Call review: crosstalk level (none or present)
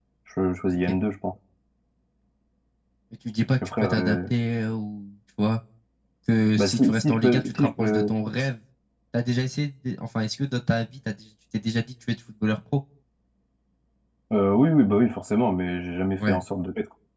present